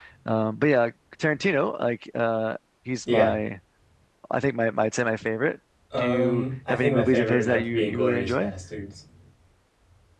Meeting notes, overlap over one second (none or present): present